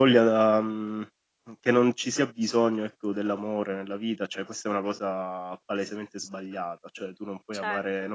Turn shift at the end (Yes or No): No